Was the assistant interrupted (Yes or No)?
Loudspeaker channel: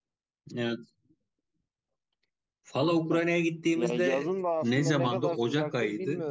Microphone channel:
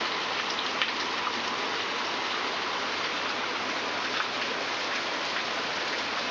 No